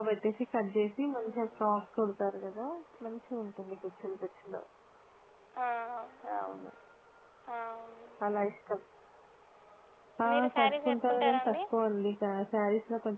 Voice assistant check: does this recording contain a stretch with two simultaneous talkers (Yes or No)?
Yes